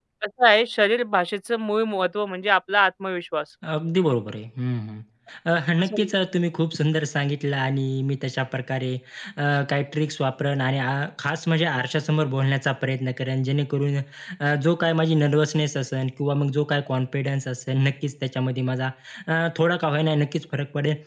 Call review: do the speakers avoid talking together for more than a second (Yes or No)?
Yes